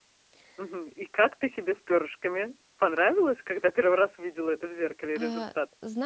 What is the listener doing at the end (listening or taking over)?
taking over